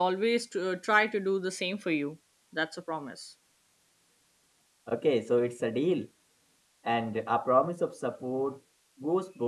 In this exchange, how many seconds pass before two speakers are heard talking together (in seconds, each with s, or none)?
none